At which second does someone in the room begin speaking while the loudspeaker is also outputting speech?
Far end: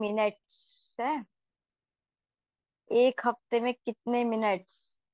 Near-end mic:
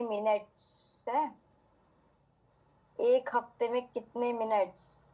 none

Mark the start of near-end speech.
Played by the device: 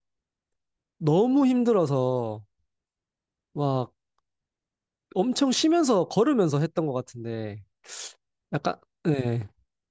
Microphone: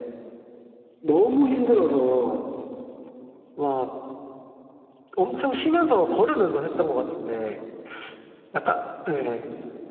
none

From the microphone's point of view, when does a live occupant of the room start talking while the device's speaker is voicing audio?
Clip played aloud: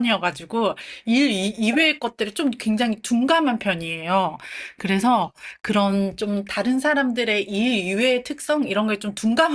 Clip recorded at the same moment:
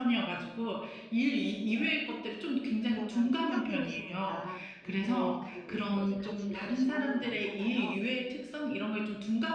2.9 s

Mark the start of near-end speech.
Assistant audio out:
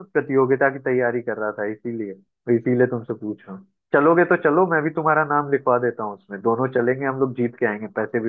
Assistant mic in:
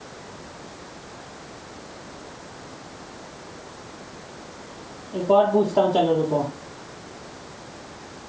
5.2 s

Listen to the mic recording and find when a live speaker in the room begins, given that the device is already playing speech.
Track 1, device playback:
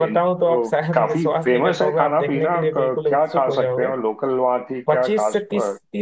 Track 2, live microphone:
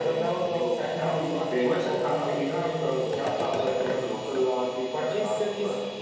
none

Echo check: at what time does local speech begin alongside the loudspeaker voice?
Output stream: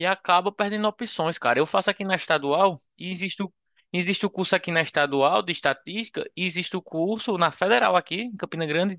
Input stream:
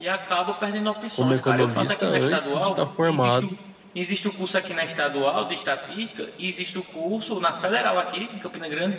1.1 s

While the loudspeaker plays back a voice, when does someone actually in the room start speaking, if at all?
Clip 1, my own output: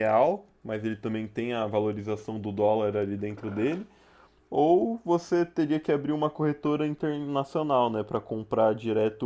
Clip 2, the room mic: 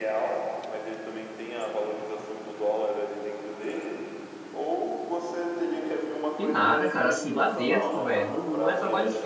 6.3 s

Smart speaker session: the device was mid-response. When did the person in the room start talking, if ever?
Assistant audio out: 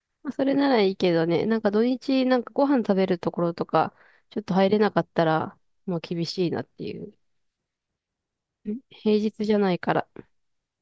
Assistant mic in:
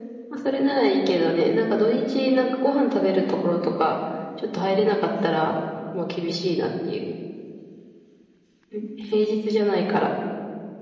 none

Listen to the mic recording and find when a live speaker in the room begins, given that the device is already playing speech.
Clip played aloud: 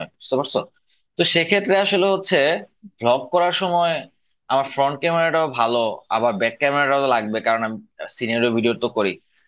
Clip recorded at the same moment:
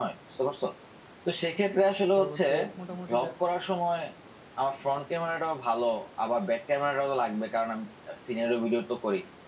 2.1 s

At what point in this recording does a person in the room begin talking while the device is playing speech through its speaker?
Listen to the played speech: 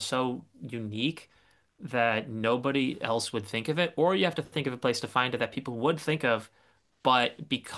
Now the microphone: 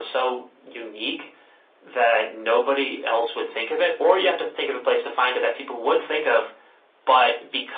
none

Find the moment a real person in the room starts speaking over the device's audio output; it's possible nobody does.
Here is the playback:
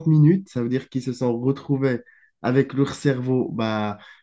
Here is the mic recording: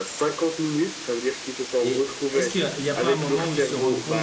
1.8 s

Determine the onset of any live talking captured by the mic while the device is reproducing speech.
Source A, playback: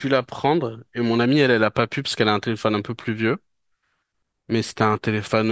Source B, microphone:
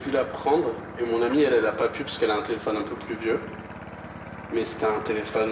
none

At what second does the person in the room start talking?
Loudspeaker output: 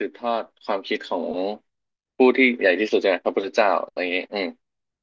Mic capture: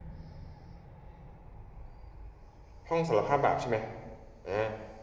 2.9 s

